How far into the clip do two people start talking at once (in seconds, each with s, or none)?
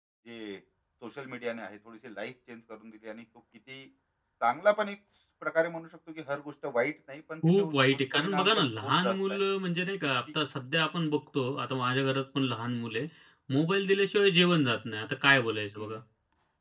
7.4 s